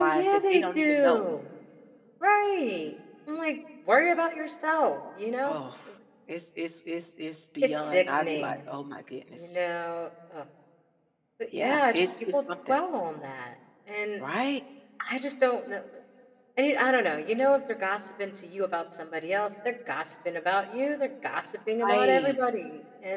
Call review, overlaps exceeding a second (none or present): present